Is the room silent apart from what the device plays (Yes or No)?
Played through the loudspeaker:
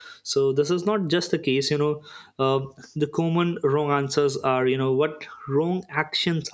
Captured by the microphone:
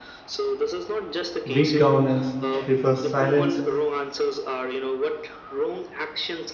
No